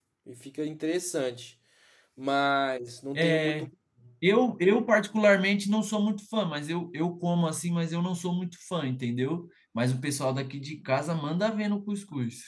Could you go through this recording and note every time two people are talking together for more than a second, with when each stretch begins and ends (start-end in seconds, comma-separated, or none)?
none